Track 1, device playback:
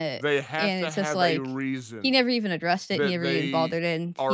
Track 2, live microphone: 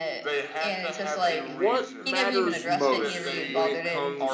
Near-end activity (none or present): present